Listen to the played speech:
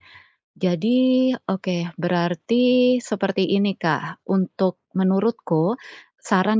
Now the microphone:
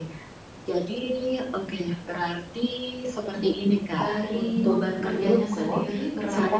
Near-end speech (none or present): present